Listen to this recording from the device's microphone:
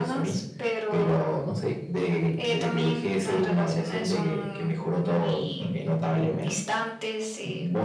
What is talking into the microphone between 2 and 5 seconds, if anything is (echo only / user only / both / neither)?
echo only